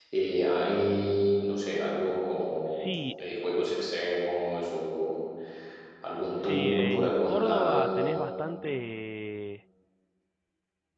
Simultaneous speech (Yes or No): Yes